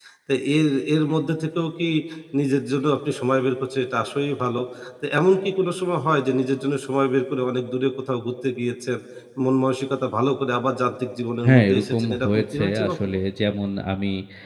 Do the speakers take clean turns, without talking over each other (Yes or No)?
No